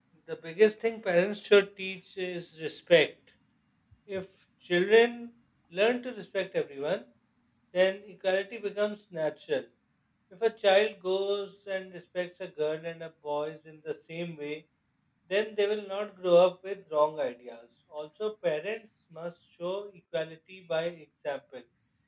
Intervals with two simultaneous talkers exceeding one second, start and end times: none

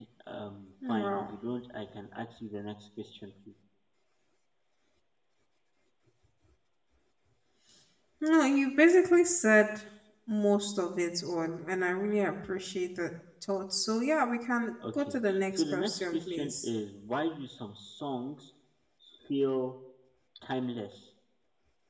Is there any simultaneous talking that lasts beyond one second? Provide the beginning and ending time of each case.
14.9-16.7

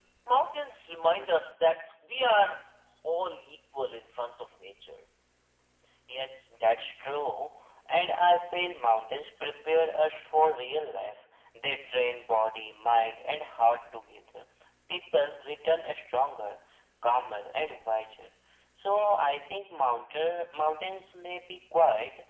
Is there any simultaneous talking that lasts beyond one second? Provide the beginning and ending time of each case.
none

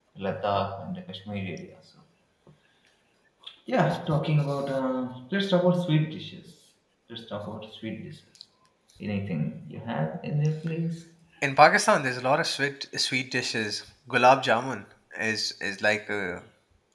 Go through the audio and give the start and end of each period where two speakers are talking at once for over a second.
none

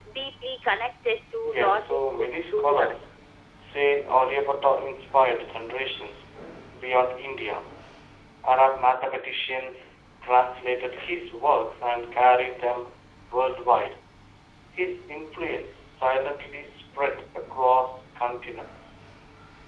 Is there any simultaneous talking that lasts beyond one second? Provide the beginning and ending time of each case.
1.4-2.9

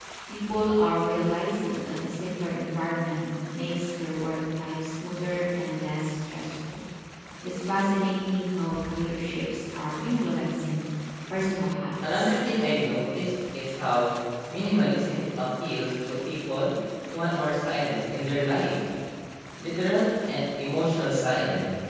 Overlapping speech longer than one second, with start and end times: none

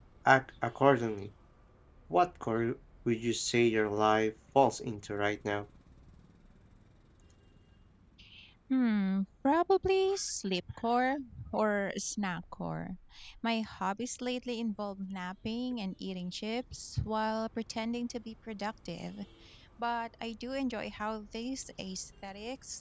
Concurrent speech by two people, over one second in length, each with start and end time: none

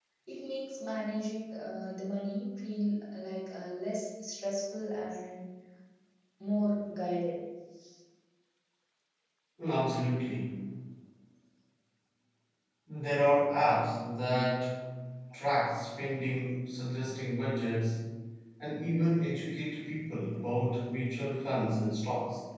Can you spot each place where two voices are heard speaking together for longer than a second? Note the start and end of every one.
none

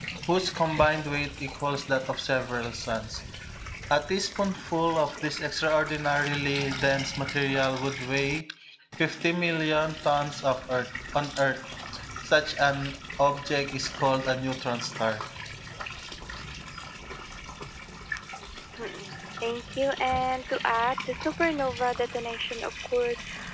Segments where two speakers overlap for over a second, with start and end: none

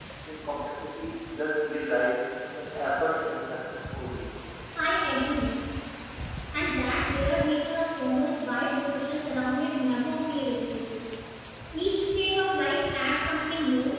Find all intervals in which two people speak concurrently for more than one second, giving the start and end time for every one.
none

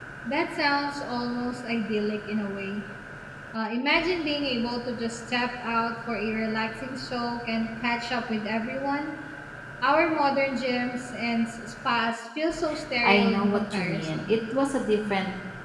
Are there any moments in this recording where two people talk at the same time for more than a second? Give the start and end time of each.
13.0-14.4

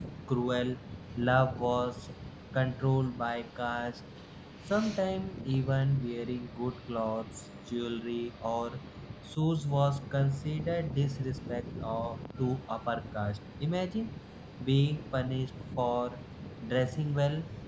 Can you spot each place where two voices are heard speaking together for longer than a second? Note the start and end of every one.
none

